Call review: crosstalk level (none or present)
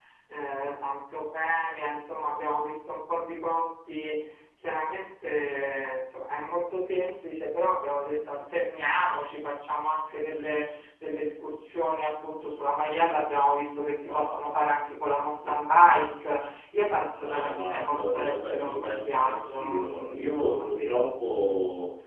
present